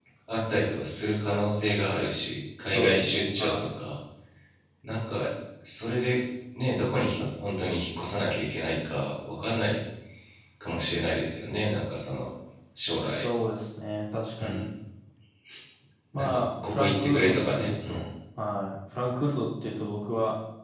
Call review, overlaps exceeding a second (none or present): present